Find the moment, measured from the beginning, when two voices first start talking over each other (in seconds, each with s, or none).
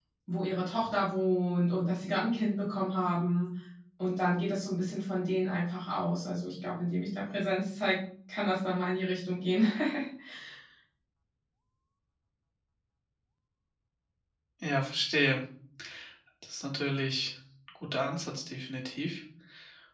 none